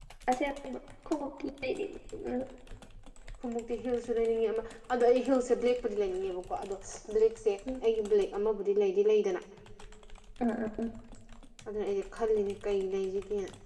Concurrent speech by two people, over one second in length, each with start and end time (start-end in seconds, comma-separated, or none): none